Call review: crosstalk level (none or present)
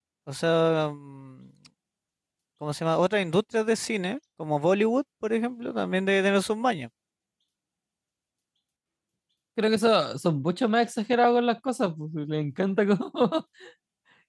none